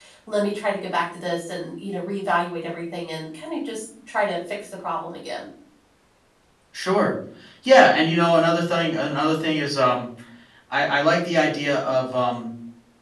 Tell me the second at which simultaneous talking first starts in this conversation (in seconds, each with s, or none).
none